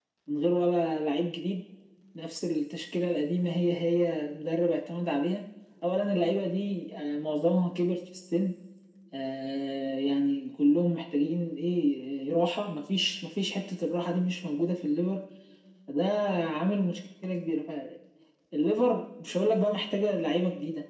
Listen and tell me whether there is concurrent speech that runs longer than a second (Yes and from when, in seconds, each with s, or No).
No